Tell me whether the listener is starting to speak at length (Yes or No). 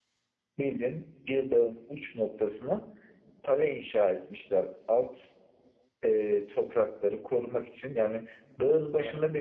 No